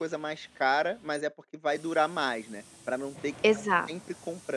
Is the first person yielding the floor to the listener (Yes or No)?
No